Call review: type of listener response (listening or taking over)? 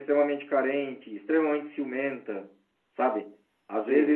listening